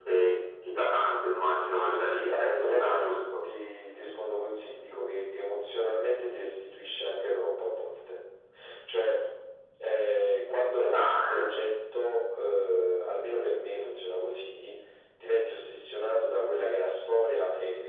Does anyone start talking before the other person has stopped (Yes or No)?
Yes